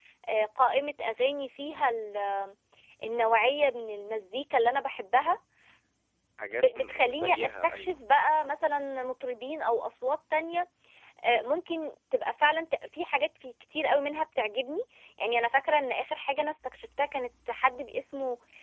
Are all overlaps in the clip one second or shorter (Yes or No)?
No